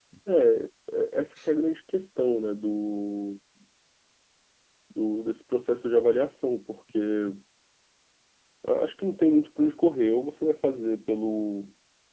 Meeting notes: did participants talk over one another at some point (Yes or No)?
No